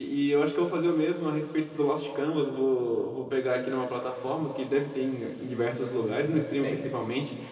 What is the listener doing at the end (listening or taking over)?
listening